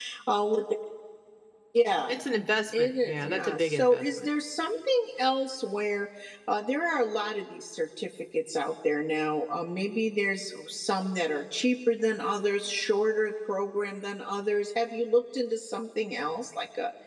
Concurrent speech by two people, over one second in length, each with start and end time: 2.7-4.3

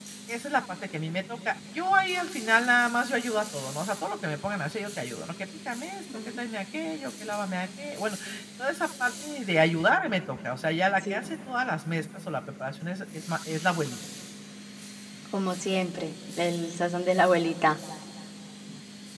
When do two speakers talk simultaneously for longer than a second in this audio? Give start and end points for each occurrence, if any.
none

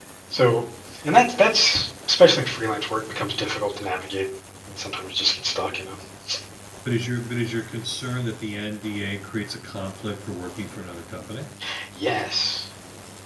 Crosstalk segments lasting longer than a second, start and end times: none

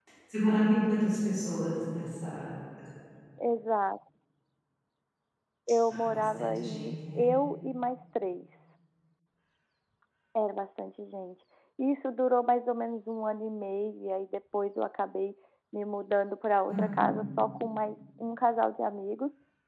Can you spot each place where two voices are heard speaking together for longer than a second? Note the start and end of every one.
5.9-7.3

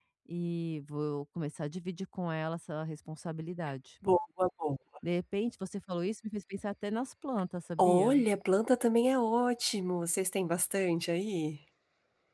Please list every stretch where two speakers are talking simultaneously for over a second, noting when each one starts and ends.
none

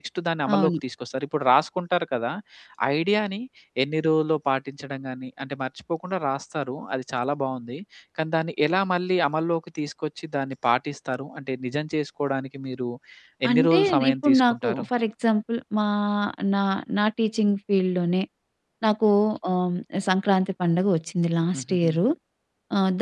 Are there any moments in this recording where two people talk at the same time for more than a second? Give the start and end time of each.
13.5-14.8

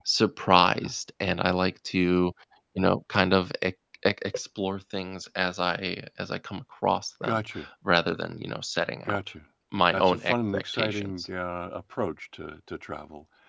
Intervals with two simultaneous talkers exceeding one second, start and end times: 9.9-11.3

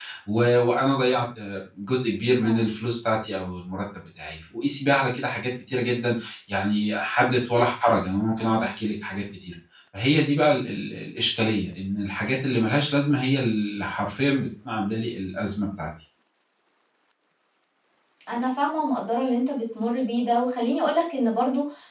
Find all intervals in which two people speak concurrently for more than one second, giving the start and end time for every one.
none

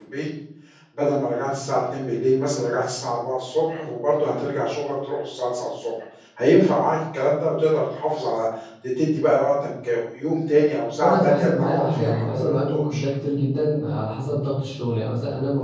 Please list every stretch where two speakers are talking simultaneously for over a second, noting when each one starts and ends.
11.0-13.0

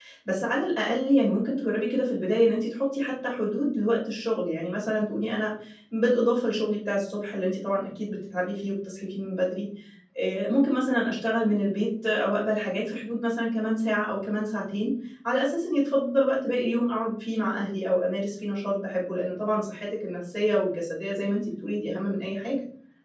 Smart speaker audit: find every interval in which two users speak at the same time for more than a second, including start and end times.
none

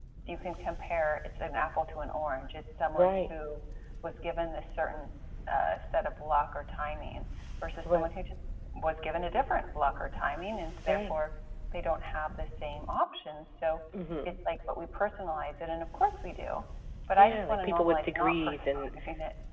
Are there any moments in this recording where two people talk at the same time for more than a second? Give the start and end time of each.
17.2-18.9

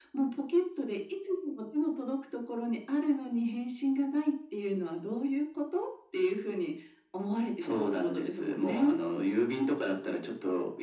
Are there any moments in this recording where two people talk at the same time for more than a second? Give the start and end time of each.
7.6-8.9

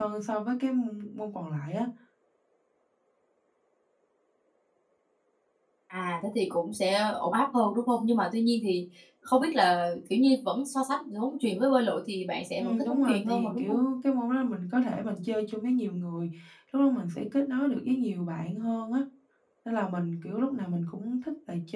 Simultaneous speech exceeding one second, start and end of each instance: 12.6-13.8

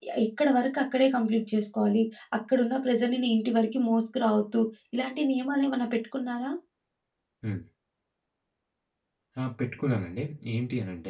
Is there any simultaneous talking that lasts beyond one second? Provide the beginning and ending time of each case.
none

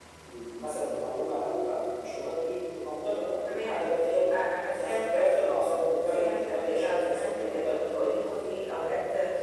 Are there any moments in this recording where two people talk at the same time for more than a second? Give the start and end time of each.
6.0-8.6

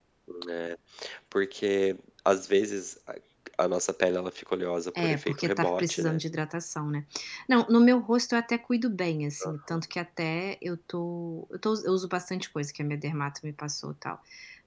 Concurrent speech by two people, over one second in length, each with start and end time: 5.0-6.2

